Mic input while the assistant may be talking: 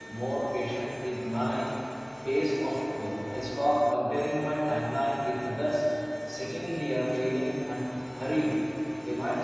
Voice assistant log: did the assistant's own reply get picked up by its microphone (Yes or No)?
No